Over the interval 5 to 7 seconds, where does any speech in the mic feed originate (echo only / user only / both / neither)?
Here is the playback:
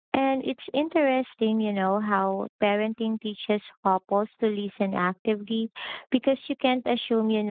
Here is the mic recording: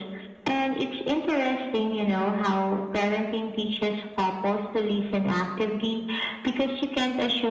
echo only